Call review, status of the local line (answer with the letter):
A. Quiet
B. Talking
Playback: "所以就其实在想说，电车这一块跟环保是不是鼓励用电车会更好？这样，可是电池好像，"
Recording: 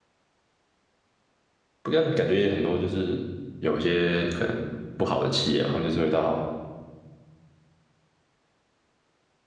B